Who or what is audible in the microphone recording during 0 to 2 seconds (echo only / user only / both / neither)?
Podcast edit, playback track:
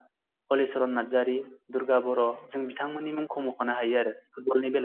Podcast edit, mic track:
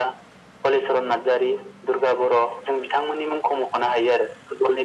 echo only